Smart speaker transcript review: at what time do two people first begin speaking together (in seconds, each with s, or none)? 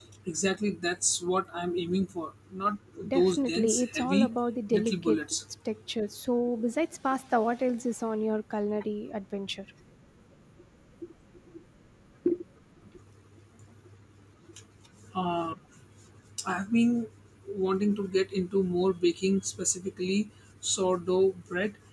3.1 s